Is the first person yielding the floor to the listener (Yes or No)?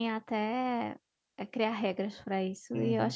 Yes